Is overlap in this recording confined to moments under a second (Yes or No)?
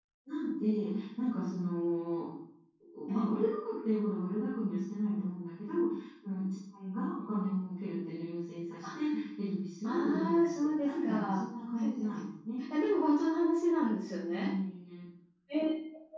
No